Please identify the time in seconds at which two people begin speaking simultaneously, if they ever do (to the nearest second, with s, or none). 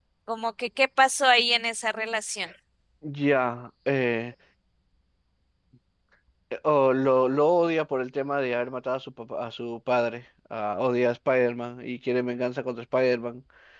none